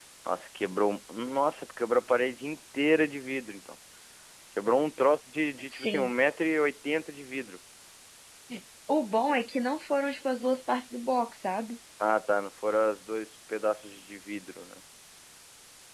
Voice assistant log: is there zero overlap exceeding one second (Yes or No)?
Yes